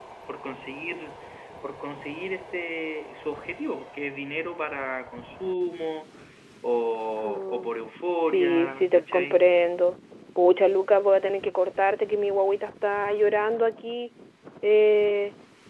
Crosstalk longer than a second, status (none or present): present